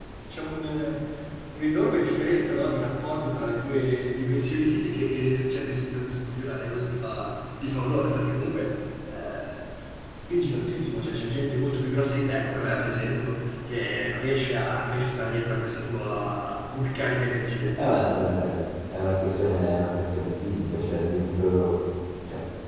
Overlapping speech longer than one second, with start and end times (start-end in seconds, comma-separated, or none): none